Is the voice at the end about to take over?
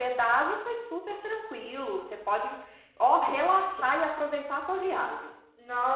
Yes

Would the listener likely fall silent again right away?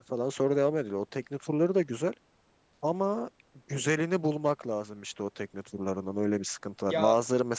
Yes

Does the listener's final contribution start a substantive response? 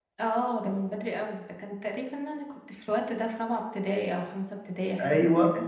Yes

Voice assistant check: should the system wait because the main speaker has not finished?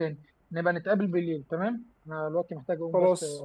Yes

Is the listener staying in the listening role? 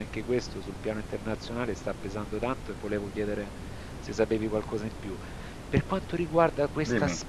Yes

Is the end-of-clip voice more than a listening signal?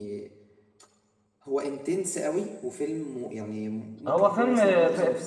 Yes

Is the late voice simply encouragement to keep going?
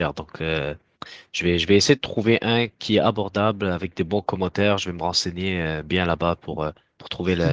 No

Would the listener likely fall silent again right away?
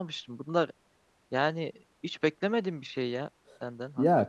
No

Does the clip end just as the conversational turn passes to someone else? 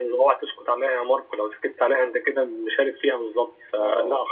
No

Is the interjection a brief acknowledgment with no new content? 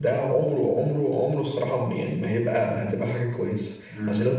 Yes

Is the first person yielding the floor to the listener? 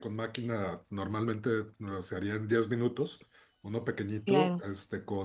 No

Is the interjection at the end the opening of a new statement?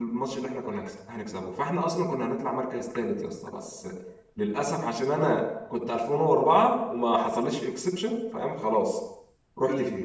Yes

